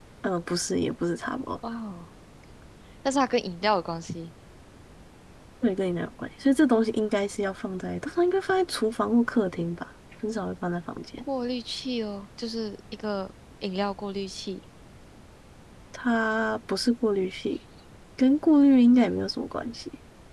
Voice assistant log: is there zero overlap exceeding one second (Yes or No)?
Yes